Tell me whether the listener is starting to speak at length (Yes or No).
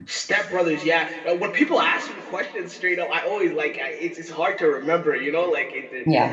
No